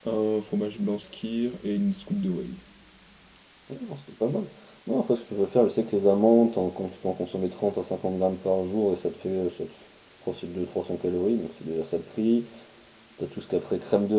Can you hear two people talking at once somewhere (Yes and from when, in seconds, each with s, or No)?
No